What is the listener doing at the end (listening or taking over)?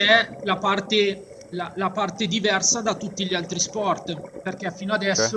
listening